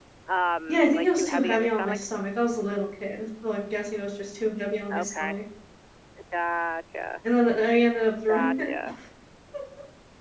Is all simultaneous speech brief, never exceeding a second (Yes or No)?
No